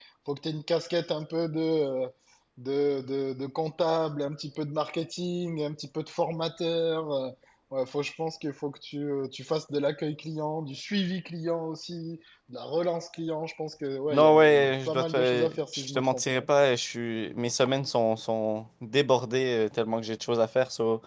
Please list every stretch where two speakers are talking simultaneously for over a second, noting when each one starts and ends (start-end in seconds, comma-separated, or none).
14.1-16.5